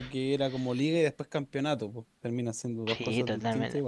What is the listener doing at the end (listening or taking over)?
taking over